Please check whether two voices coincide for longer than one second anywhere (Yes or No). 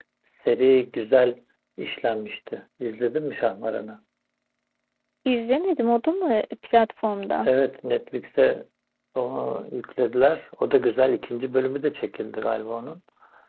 No